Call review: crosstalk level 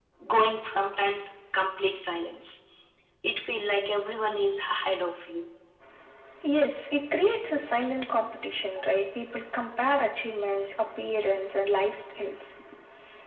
none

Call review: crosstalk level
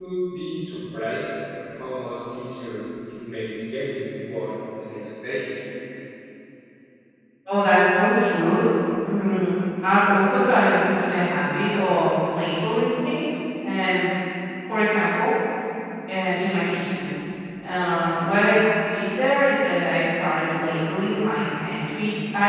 none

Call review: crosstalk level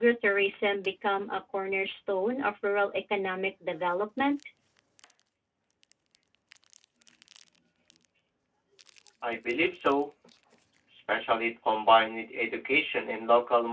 none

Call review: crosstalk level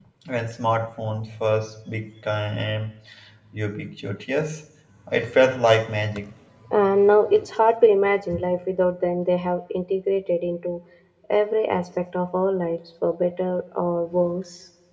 none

